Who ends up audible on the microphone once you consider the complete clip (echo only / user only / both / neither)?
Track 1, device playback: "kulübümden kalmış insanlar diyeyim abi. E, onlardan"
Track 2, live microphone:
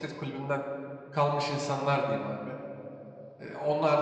echo only